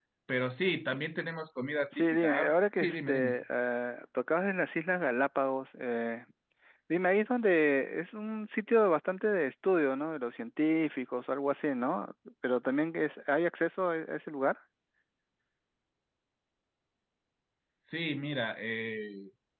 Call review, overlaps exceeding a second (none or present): present